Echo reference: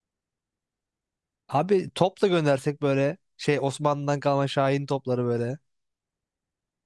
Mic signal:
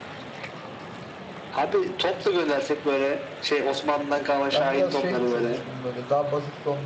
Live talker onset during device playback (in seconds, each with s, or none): 4.5 s